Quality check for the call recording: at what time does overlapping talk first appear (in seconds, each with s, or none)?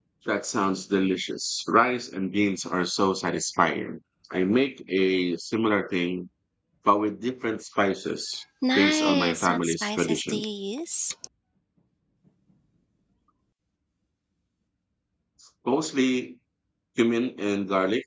8.8 s